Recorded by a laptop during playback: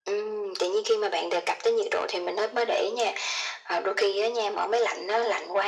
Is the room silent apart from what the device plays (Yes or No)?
Yes